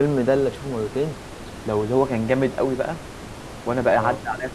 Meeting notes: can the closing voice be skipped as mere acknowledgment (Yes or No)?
Yes